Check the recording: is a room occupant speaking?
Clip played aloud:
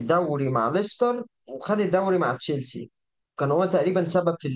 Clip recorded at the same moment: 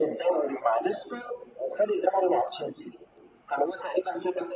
No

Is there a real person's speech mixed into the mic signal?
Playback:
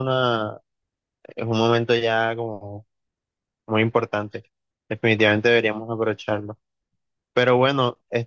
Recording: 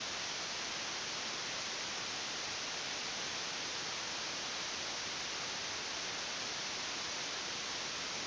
No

